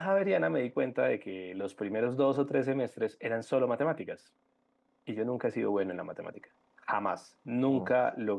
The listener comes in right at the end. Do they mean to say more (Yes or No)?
No